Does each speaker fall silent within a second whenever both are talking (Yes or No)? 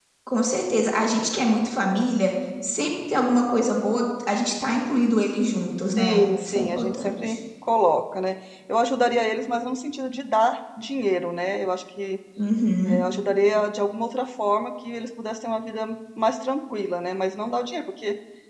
No